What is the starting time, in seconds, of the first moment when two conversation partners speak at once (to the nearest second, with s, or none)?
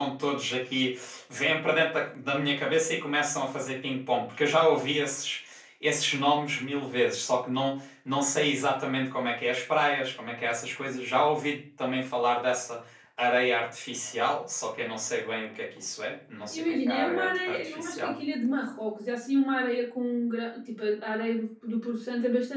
17 s